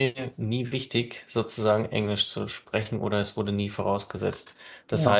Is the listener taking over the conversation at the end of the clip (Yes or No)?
No